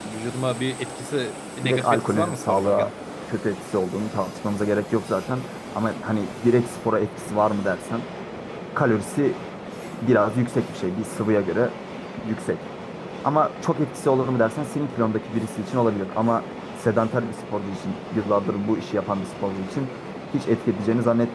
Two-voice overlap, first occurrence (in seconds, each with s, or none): 1.6 s